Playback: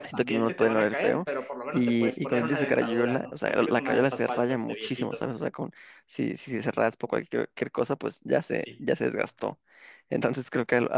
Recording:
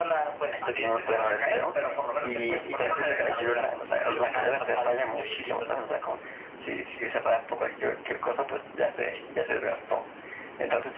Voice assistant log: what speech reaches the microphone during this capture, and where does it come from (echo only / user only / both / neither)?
echo only